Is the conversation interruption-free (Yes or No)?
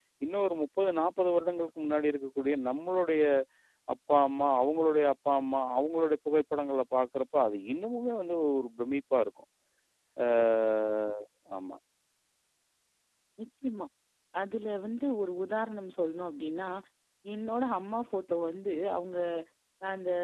Yes